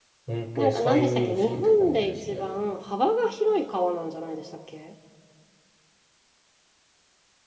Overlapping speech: Yes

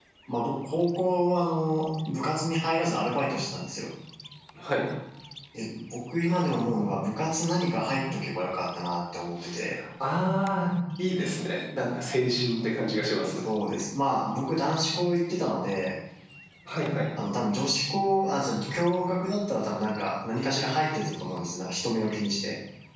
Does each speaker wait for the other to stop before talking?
Yes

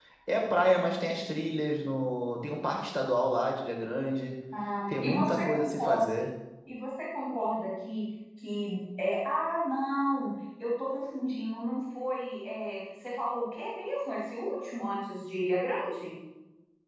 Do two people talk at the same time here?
Yes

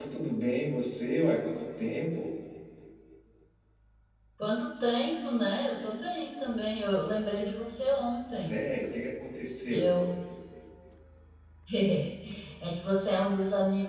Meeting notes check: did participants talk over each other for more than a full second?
No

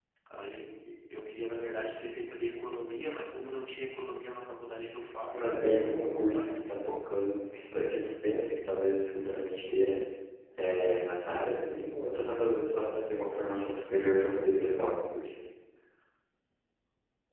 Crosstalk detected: Yes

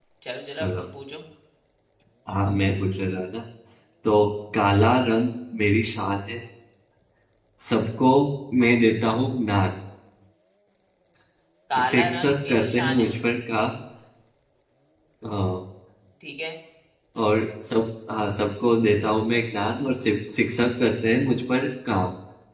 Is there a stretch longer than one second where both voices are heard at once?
Yes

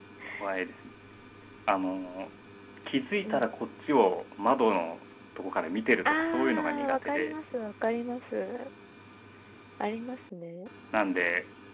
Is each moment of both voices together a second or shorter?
No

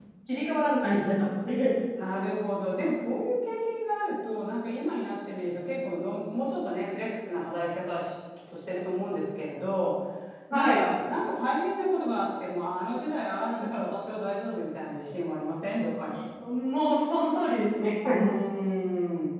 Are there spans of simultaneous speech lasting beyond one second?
No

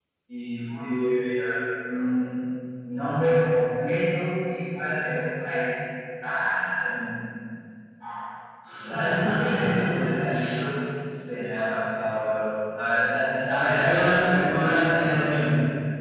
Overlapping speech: Yes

